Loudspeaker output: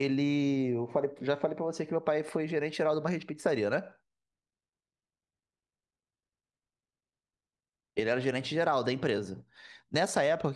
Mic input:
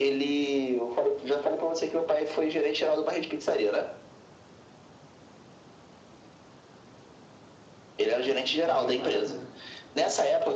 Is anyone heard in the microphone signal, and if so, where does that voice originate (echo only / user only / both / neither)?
both